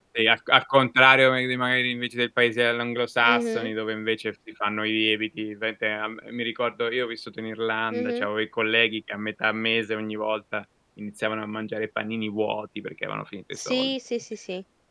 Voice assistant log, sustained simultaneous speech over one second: none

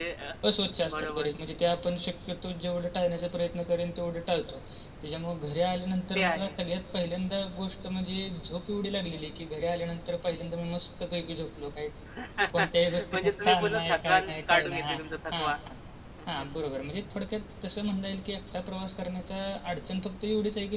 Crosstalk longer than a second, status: present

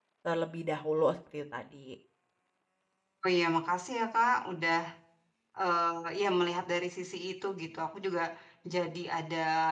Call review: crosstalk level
none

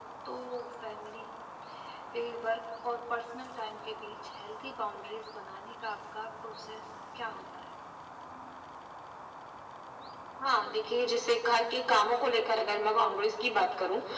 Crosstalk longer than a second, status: none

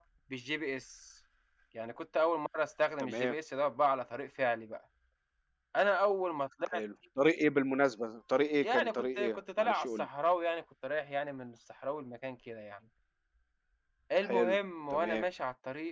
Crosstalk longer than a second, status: present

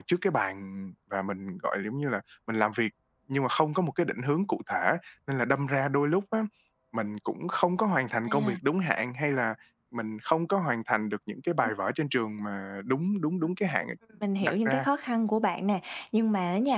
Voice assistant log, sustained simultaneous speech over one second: none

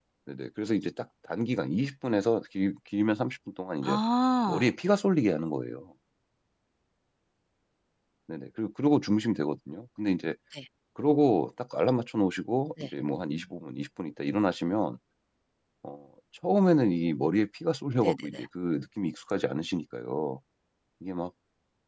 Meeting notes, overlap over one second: none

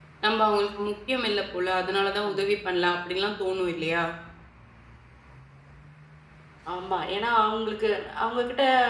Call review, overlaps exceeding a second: none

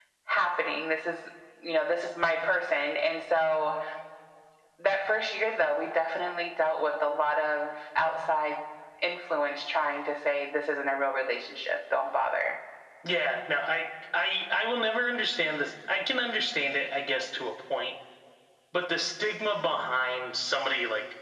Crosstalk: none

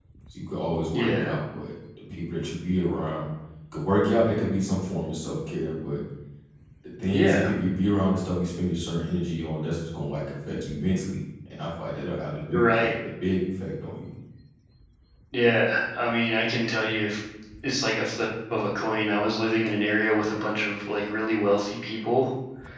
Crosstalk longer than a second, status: none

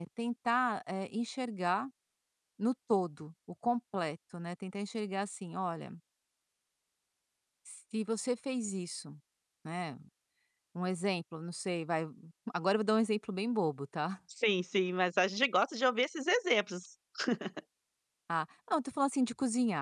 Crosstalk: none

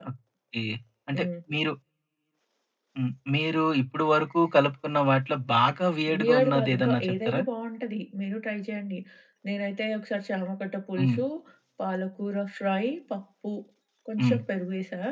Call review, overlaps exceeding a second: present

